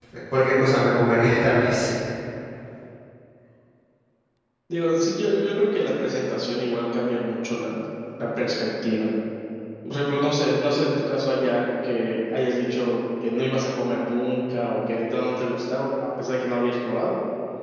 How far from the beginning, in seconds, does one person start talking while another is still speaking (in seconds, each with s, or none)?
none